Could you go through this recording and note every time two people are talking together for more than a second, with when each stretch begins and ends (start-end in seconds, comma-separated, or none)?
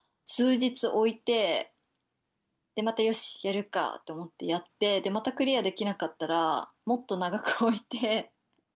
none